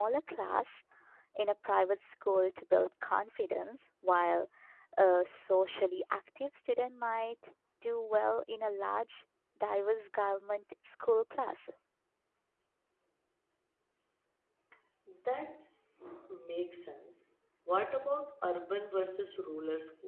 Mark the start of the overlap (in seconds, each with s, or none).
none